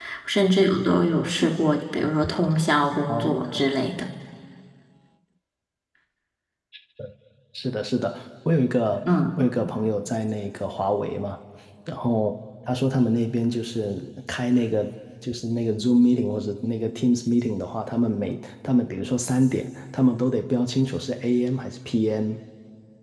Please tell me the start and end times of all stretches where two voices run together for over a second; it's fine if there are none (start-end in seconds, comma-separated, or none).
none